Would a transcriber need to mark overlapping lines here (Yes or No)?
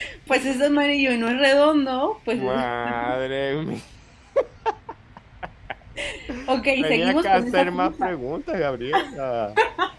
Yes